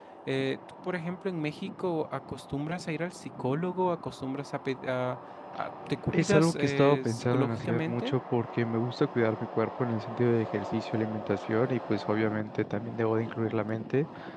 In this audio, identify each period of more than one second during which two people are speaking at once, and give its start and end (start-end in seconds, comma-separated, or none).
6.1-8.1